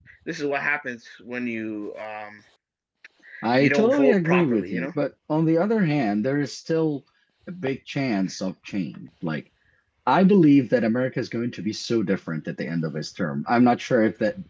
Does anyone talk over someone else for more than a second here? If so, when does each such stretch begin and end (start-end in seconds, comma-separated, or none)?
3.6-4.9